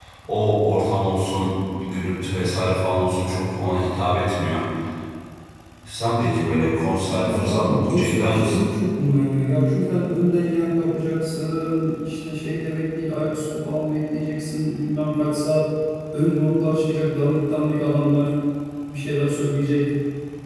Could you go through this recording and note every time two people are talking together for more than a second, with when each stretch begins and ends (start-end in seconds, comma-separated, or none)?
7.2-8.6